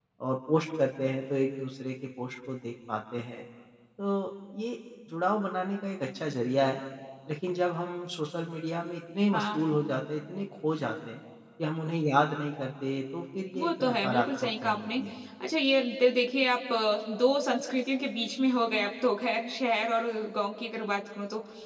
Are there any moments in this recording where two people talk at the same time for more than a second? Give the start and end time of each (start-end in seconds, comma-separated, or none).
13.6-15.0